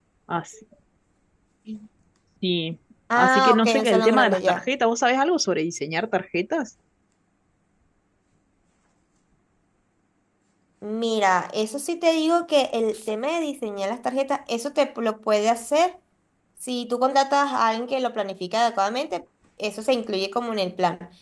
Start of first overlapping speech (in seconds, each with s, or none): 3.1 s